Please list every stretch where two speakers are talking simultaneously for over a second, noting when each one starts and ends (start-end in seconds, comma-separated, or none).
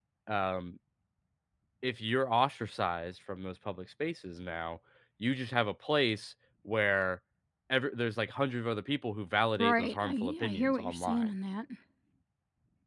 9.6-11.3